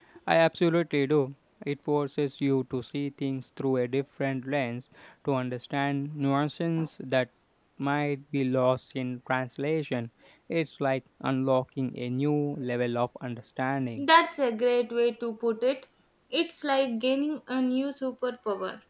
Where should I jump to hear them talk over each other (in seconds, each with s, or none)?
none